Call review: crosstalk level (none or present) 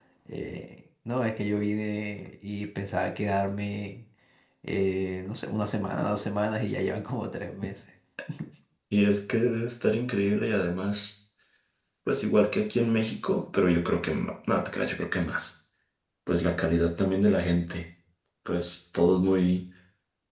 none